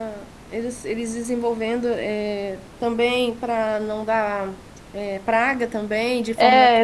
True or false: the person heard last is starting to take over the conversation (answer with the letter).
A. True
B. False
A